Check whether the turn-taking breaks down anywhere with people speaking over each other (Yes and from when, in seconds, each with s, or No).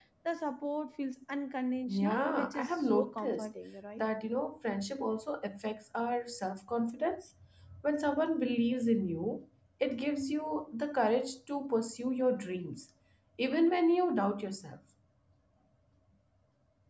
Yes, from 1.9 s